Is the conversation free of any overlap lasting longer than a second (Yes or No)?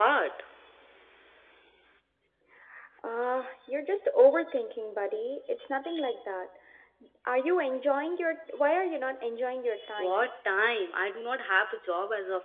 Yes